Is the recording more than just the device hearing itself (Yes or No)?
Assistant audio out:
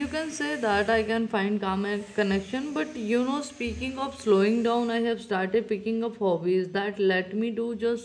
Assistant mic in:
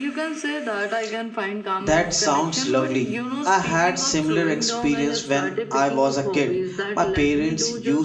Yes